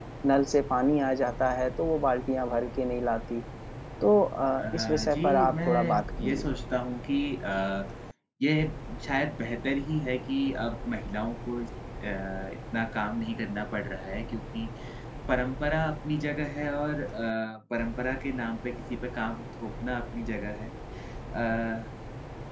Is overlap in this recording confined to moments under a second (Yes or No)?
No